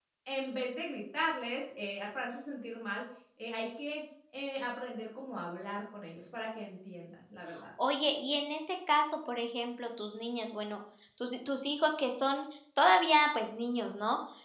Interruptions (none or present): none